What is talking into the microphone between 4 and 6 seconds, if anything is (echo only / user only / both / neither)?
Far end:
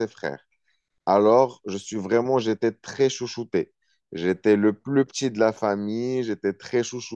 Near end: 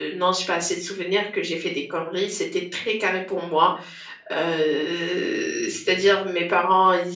user only